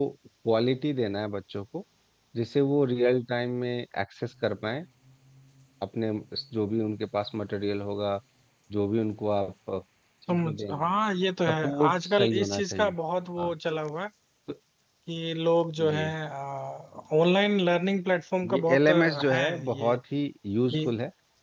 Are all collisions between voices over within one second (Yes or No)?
No